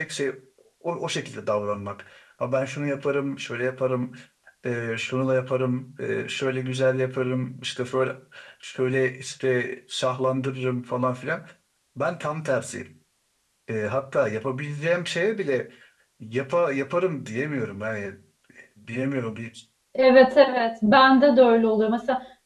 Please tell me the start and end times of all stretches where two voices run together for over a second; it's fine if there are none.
none

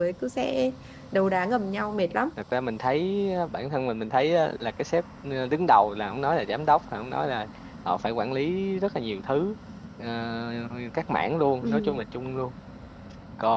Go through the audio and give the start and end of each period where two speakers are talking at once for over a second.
none

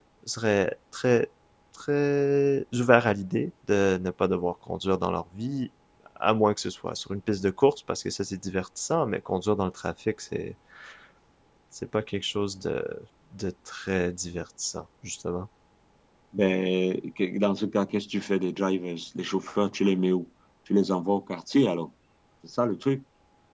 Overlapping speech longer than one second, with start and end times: none

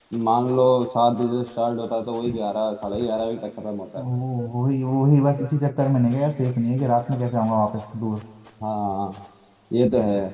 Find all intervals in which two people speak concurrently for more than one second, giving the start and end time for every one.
none

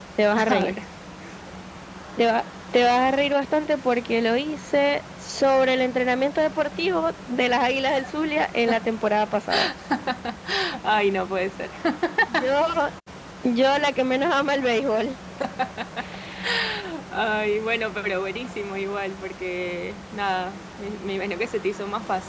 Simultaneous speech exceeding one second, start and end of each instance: none

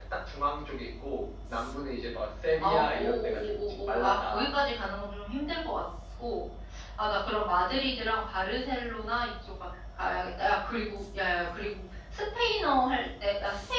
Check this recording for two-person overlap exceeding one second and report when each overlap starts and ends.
2.5-4.9

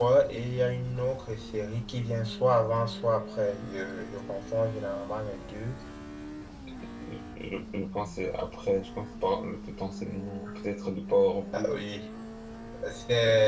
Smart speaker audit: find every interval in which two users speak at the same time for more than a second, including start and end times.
none

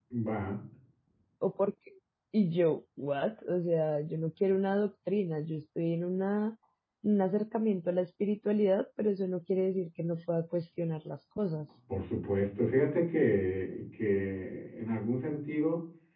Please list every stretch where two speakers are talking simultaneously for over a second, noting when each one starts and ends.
none

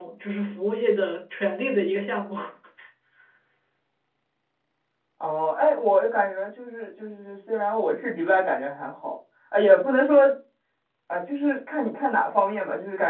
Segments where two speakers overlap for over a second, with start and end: none

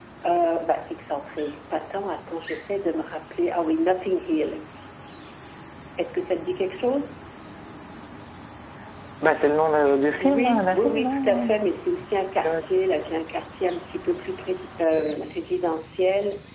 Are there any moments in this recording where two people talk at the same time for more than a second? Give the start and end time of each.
10.2-11.6

